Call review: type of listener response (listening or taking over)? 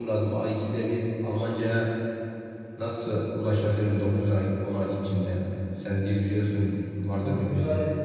taking over